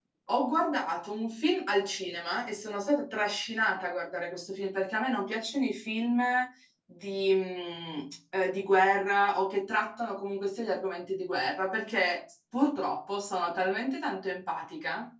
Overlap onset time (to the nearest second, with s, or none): none